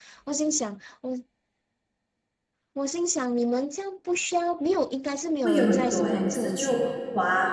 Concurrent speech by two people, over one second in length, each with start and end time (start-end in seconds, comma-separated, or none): 5.4-6.8